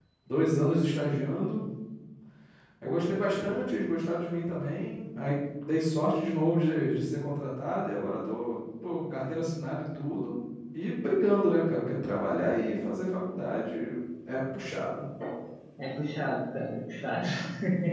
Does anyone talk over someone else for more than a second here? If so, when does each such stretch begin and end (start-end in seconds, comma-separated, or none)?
none